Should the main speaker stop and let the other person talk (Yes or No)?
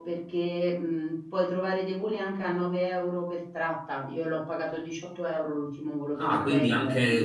Yes